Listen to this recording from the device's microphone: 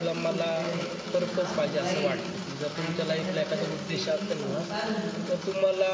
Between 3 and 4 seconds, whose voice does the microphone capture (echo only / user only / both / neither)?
both